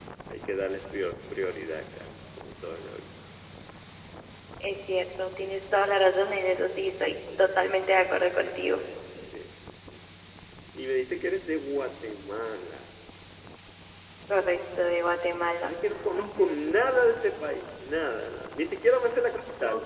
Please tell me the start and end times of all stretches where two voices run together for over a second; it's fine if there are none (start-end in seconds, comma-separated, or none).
none